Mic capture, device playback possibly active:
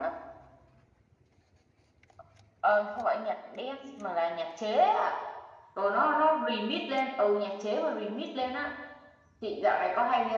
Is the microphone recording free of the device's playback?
No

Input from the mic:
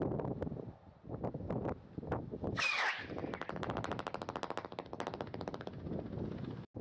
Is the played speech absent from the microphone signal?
Yes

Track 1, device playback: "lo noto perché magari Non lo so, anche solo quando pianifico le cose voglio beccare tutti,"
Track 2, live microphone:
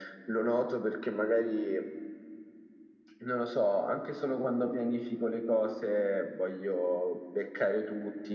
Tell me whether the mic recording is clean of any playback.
No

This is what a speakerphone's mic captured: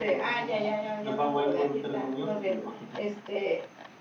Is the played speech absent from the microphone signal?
No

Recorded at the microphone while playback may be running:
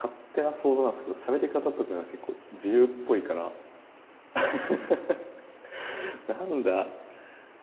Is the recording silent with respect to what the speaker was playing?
Yes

